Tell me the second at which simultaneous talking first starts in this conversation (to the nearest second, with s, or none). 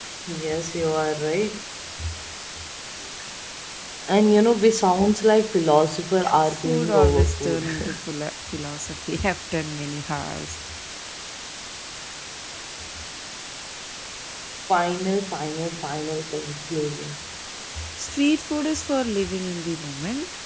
6 s